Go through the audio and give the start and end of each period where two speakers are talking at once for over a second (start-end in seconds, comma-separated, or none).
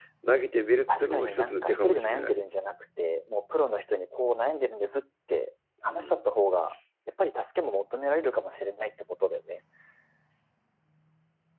0.9-2.3